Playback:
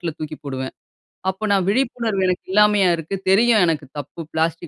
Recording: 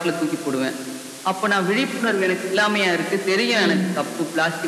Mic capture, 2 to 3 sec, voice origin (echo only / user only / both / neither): echo only